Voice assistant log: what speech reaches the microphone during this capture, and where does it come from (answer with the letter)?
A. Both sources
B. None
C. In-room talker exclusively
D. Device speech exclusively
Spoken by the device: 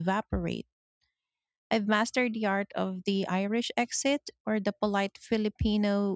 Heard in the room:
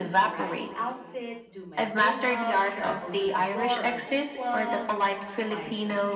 A